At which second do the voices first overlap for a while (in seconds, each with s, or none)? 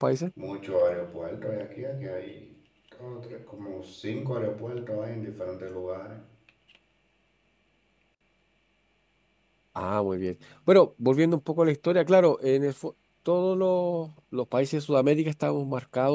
none